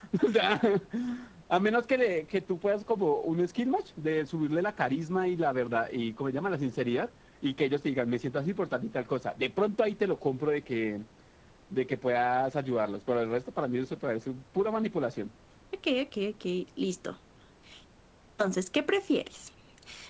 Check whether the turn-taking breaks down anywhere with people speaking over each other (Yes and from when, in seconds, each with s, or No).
No